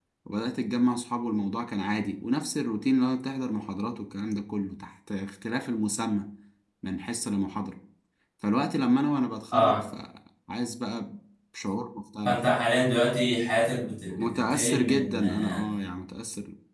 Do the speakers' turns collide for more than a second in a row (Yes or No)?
Yes